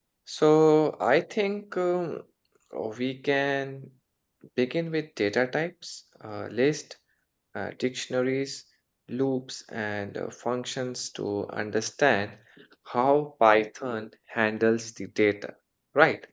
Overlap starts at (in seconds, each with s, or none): none